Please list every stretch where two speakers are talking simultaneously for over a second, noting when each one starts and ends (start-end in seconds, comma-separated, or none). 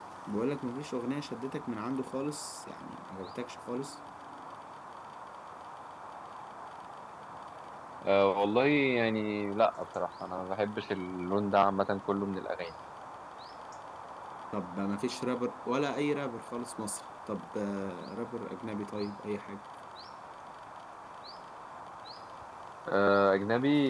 none